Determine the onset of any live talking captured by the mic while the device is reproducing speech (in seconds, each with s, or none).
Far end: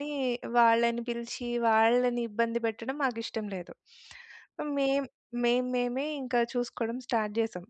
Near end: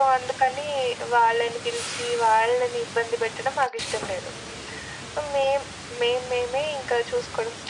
none